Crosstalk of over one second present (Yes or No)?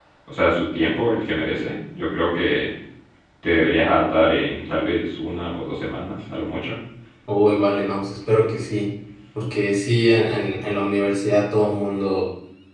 No